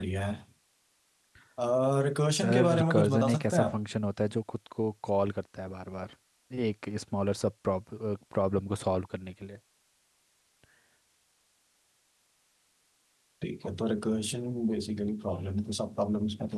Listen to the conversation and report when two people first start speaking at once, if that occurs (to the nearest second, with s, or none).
2 s